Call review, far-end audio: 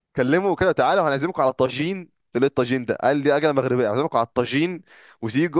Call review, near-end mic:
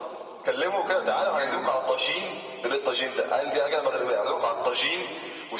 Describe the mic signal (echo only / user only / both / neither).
both